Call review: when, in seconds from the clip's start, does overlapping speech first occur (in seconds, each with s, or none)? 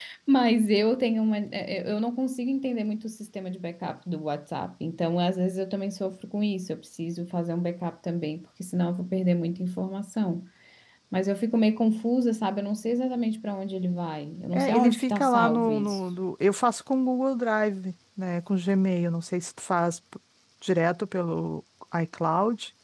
14.5 s